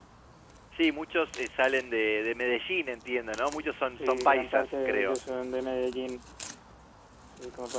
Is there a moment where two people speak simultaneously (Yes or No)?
Yes